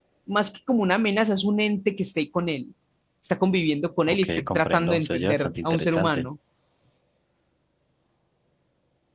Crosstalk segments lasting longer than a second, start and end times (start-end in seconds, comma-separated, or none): 4.1-6.3